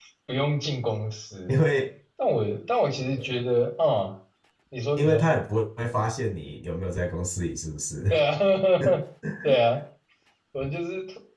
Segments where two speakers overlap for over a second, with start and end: none

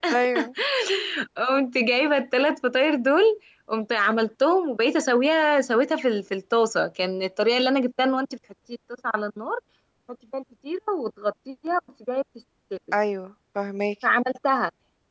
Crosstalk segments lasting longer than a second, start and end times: none

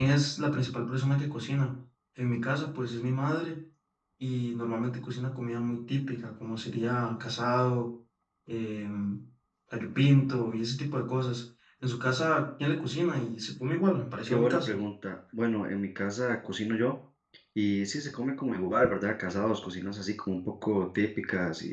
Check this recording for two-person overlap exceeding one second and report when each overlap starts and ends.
none

